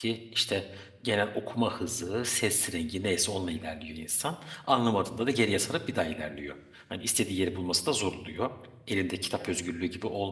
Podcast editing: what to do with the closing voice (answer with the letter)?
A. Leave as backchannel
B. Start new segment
A